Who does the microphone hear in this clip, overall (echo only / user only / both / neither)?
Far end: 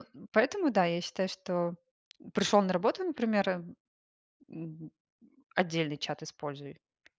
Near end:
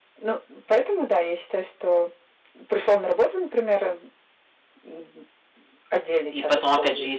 both